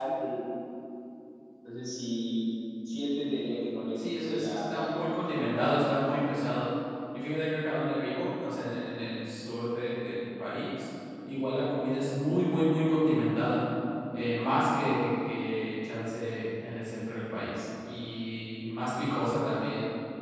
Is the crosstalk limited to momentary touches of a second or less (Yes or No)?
No